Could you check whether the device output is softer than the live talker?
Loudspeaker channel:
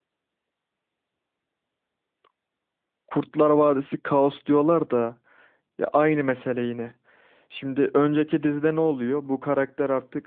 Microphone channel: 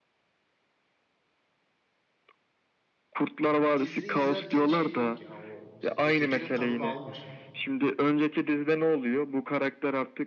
No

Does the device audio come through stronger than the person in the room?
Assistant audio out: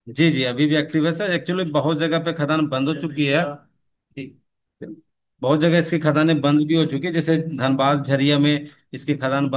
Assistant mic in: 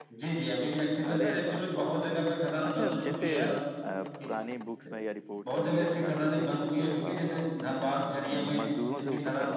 Yes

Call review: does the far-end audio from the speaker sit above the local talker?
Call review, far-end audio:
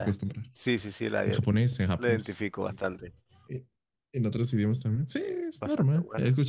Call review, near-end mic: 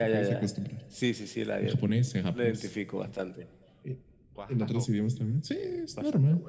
Yes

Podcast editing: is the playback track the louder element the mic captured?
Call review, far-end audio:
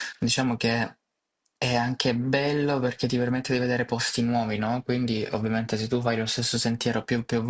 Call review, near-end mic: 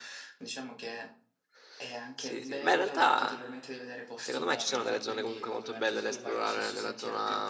No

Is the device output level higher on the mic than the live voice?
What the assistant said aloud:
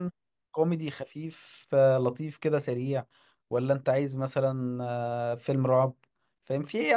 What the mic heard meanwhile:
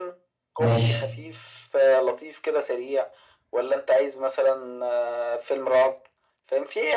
No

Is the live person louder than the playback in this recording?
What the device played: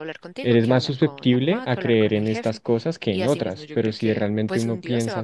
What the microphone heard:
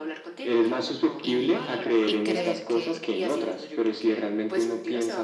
No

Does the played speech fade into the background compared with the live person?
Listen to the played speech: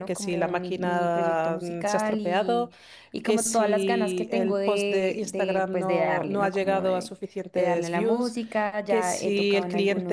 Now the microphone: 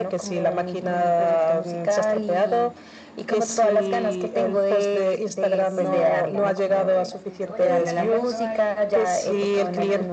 No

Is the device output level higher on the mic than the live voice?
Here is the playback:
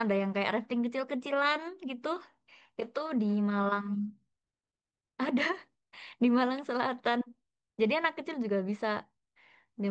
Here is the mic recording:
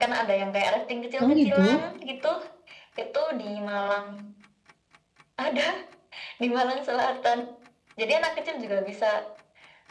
No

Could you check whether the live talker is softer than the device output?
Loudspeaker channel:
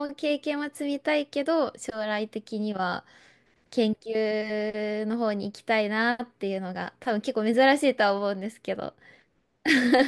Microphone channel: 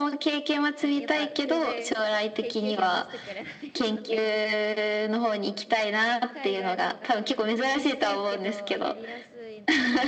Yes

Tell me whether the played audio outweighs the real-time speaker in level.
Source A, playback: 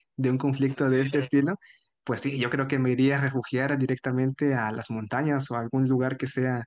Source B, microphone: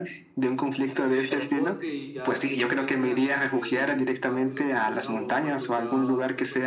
Yes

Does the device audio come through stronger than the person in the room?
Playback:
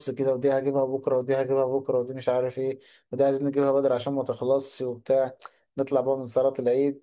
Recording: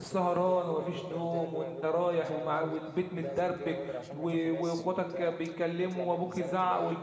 No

